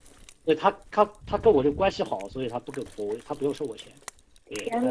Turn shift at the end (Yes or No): No